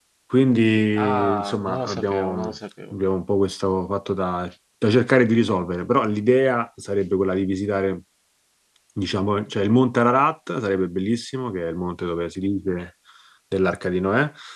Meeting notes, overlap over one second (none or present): present